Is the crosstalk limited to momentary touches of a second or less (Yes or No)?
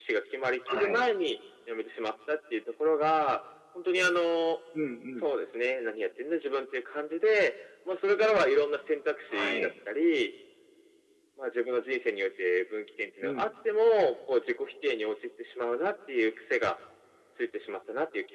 Yes